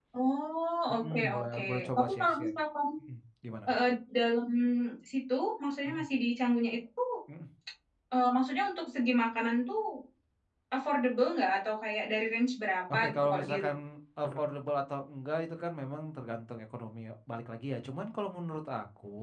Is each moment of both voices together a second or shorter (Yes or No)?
No